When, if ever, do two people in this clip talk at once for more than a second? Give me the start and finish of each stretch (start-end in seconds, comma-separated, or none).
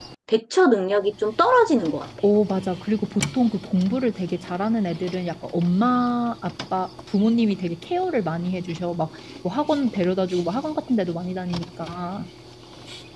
none